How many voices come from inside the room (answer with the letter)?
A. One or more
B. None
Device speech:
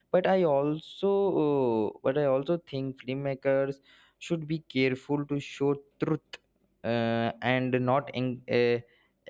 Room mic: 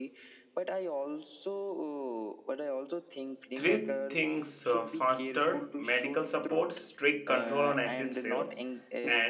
A